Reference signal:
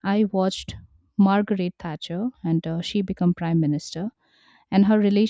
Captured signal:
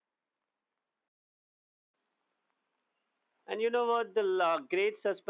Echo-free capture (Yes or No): Yes